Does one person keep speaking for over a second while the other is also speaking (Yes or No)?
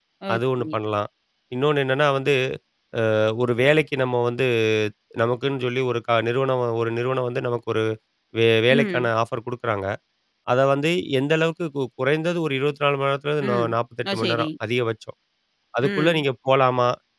No